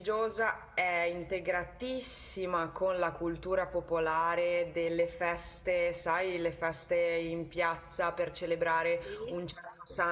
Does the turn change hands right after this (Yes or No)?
No